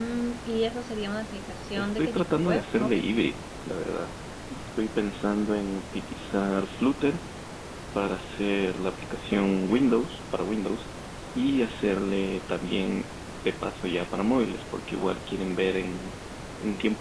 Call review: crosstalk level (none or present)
present